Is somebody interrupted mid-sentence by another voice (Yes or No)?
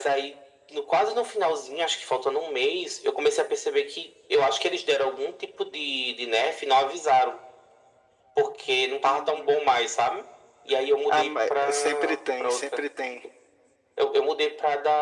Yes